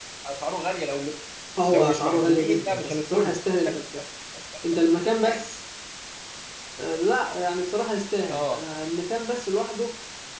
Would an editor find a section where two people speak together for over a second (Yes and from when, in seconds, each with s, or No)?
Yes, from 1.7 s